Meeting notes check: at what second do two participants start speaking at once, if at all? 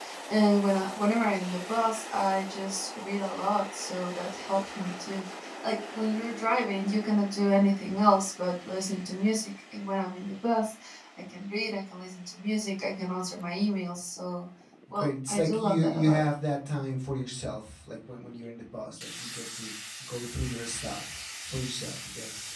14.9 s

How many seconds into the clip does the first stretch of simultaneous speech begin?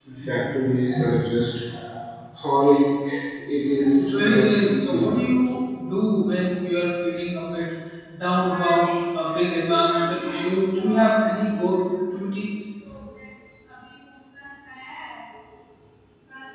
4.0 s

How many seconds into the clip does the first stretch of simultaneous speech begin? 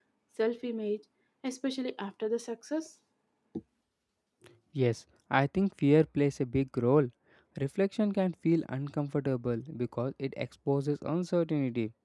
none

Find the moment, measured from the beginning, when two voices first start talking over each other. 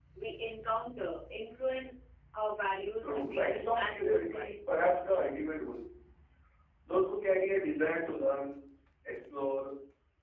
3.0 s

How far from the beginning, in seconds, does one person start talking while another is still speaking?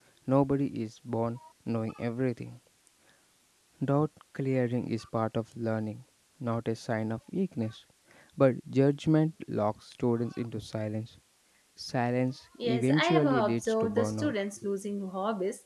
12.6 s

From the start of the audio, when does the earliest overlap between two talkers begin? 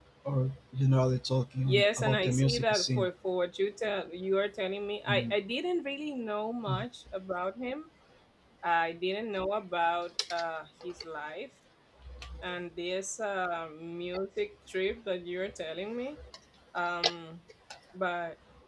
1.6 s

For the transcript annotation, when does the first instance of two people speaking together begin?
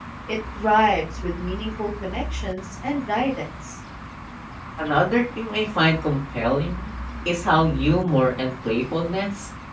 none

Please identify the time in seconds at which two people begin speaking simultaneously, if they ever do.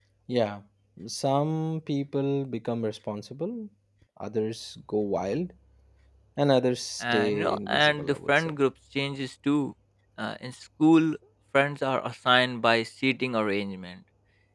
7.0 s

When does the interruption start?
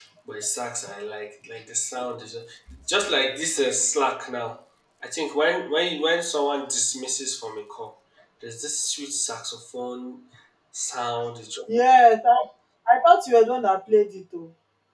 none

